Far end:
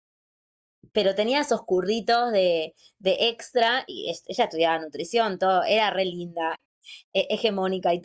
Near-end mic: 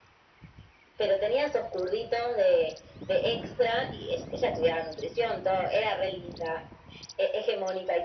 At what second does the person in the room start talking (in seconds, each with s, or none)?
none